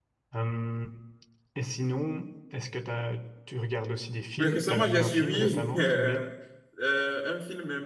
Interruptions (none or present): present